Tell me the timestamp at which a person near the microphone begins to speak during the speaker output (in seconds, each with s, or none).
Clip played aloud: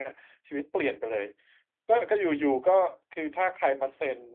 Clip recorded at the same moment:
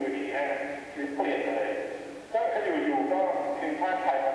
none